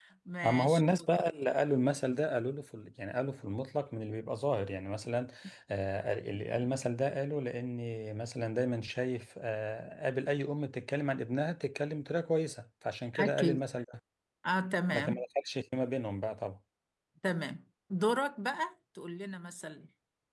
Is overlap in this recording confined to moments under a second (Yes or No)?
Yes